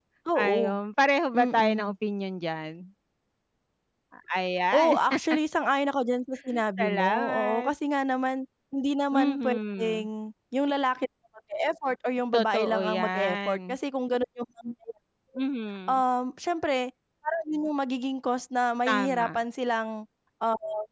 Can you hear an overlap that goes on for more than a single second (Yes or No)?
Yes